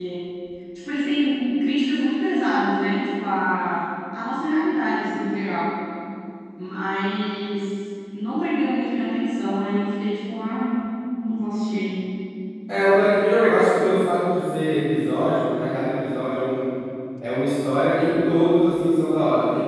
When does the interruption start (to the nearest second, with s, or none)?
none